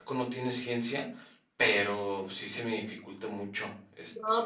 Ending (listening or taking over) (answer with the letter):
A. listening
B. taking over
B